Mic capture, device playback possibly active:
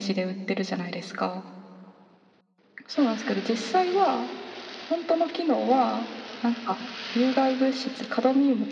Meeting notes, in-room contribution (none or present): none